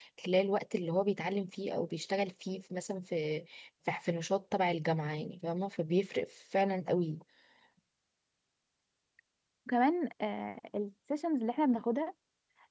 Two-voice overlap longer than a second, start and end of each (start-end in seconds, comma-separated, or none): none